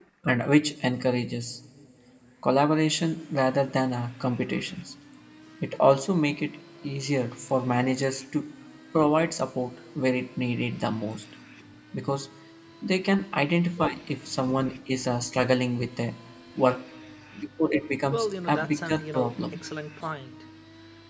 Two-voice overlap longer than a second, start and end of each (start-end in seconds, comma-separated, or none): 18.1-19.6